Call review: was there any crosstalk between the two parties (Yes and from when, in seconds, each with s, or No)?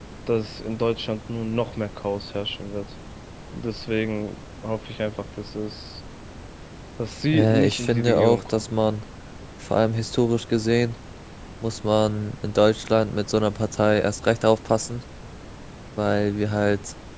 Yes, from 7.3 s